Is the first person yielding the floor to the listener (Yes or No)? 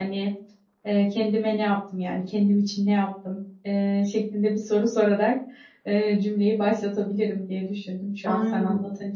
No